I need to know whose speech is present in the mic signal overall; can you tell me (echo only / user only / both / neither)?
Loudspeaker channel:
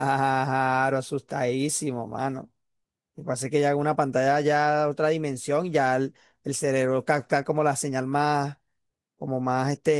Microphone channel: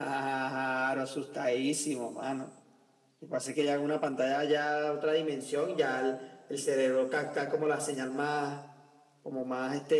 echo only